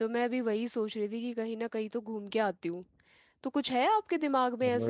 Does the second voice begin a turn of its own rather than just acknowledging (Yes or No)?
Yes